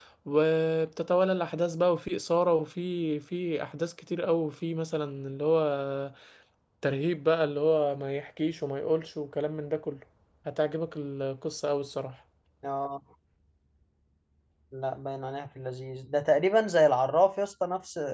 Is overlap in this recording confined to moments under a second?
Yes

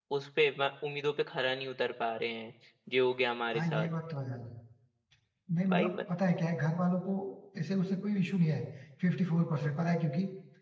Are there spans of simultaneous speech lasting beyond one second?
No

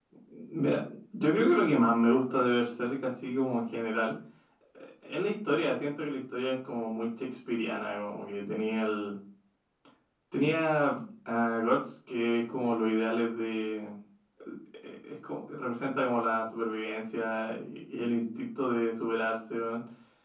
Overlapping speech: No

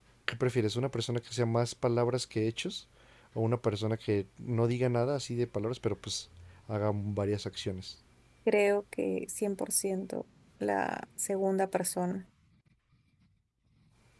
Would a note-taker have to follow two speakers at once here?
No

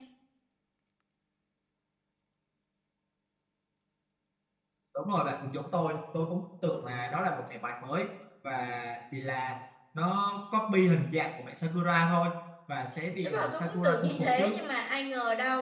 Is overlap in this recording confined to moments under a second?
No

